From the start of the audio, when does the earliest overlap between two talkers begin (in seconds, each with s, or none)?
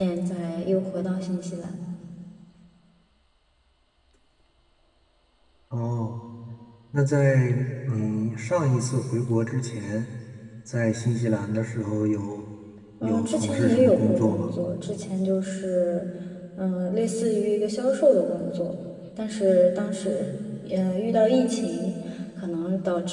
13.0 s